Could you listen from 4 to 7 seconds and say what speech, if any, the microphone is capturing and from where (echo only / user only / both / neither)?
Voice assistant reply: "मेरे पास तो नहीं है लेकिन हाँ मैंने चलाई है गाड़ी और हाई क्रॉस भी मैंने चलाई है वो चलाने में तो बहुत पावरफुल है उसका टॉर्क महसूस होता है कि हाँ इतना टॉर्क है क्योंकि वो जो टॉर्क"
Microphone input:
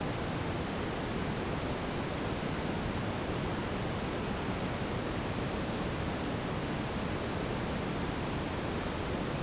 neither